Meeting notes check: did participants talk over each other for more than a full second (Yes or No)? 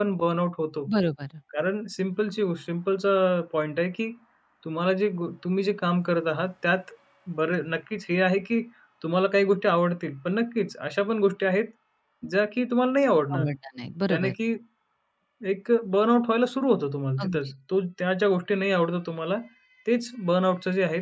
No